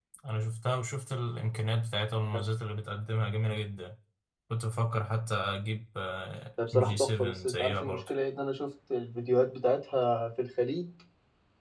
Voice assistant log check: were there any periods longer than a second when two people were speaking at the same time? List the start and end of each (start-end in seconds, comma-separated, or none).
6.7-8.1